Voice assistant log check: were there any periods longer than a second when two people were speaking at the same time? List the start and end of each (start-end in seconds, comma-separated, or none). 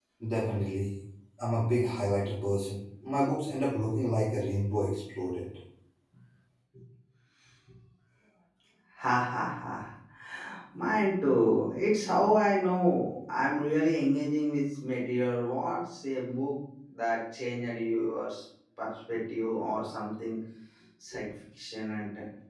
none